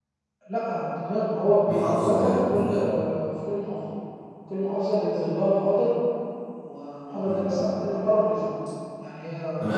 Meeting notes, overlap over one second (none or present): present